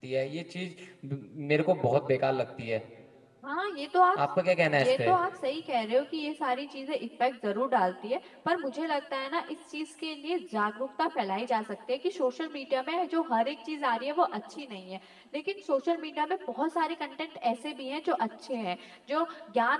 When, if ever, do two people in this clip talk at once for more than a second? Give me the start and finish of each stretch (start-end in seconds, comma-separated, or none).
none